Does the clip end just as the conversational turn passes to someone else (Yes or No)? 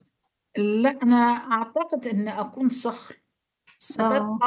No